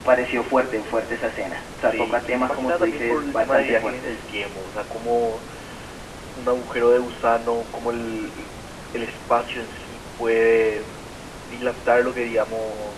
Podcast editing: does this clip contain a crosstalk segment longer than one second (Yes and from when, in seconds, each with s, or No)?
Yes, from 1.8 s